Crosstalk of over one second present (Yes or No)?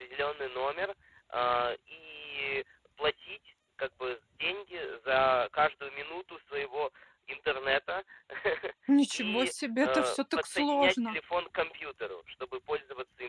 Yes